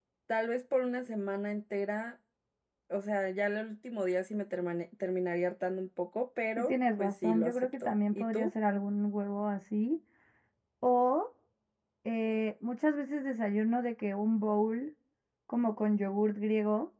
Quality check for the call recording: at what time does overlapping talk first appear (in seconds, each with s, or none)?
6.6 s